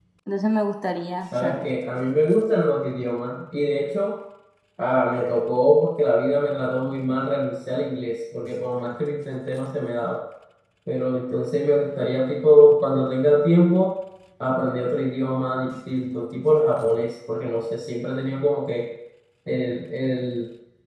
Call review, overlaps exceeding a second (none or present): none